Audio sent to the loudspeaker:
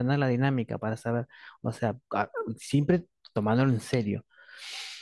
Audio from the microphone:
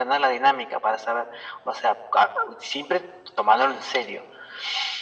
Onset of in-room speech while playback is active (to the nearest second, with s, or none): none